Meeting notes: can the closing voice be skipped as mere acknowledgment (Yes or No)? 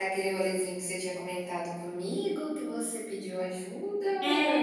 No